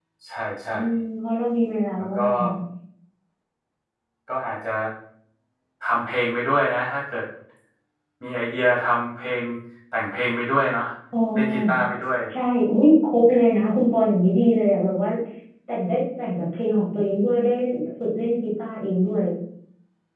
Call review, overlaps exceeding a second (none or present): none